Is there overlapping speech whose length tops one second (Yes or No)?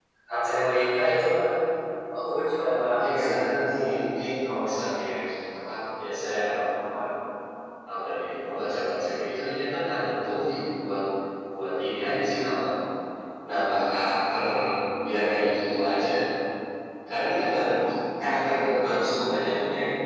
Yes